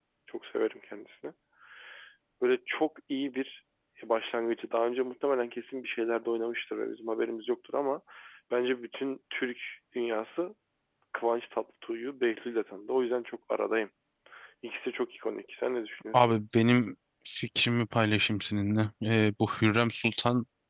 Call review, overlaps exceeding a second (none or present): none